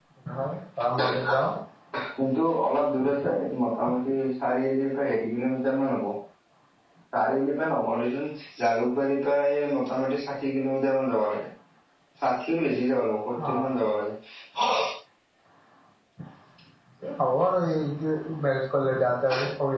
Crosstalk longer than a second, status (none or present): none